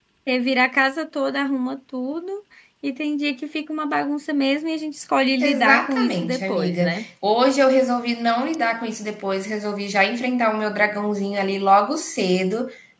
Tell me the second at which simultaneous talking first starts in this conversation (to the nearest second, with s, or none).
5 s